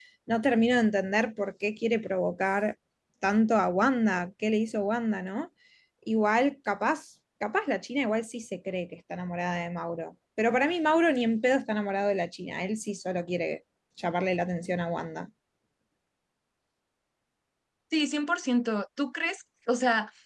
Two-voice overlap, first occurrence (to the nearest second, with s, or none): none